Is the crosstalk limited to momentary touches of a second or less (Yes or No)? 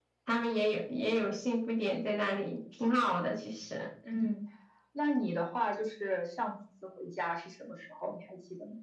Yes